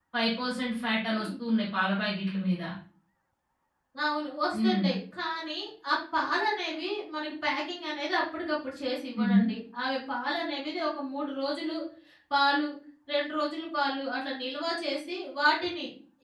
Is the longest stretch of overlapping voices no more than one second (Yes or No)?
Yes